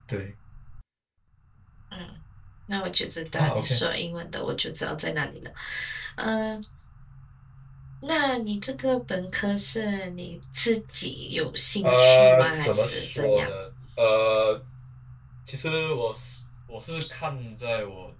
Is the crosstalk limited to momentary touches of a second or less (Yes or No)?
No